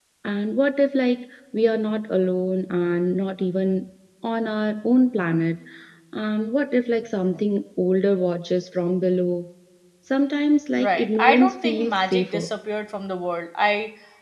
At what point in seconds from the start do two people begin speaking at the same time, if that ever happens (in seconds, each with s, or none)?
10.8 s